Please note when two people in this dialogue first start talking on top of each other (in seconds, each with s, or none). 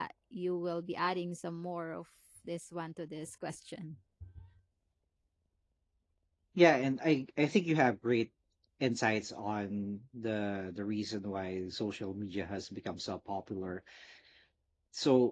none